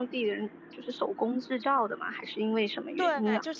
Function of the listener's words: taking over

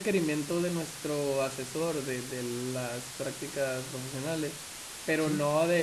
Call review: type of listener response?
listening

